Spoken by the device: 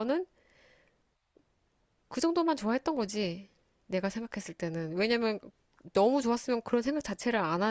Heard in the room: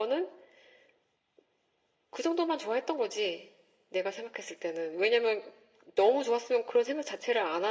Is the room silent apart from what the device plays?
Yes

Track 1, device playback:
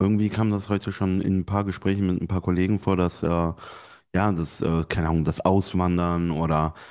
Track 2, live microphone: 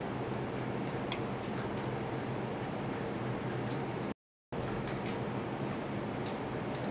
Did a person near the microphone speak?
No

